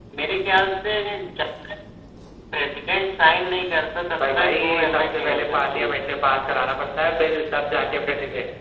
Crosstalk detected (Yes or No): Yes